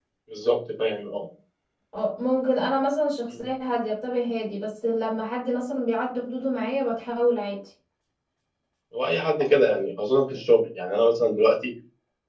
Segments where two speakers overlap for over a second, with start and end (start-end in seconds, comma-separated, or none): none